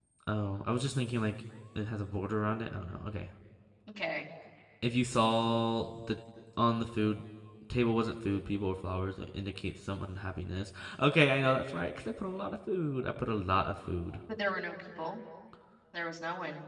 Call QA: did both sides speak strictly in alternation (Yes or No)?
Yes